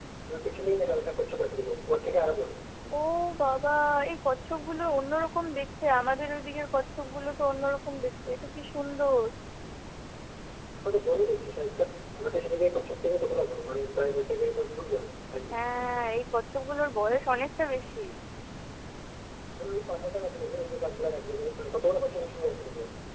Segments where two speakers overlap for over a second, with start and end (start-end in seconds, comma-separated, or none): none